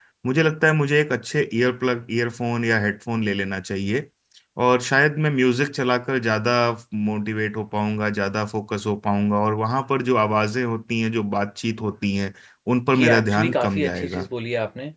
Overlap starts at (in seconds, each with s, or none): 13.0 s